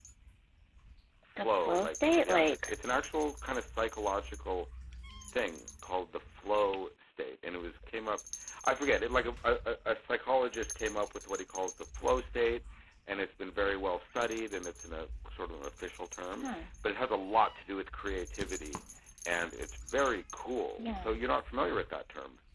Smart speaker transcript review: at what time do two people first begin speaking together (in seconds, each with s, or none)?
1.4 s